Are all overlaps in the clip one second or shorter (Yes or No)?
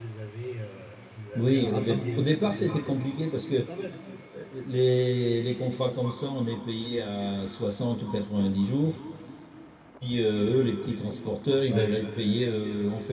No